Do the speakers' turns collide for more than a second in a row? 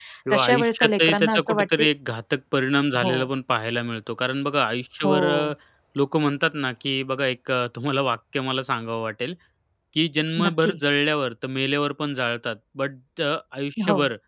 Yes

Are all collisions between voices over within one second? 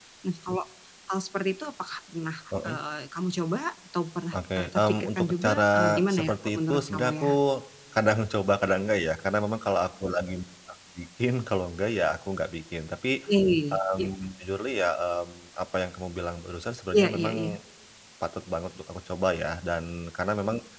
No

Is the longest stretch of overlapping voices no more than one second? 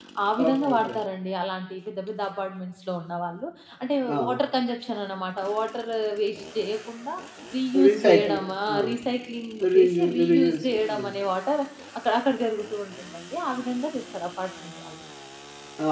No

